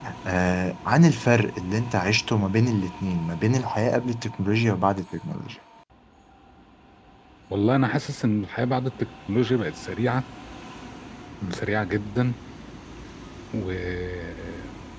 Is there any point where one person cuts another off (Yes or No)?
No